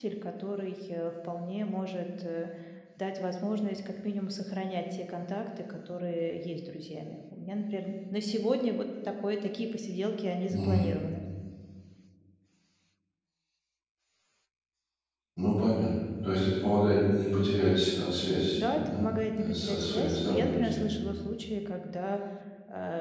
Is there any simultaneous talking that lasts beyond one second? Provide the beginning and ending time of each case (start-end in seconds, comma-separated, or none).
18.6-20.9